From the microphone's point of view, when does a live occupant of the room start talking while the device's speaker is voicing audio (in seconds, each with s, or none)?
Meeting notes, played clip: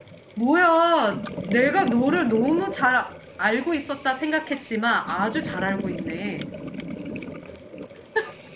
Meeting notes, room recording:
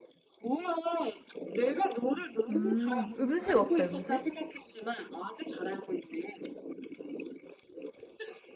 2.5 s